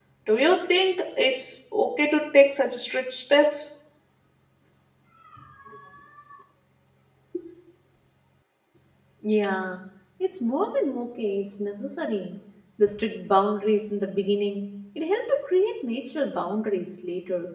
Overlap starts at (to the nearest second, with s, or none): none